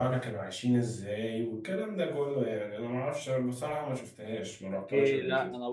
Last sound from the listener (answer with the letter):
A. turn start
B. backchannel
A